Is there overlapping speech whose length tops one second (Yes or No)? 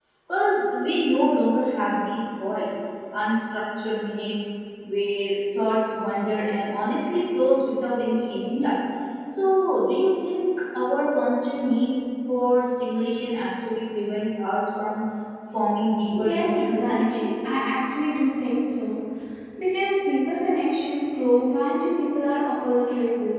Yes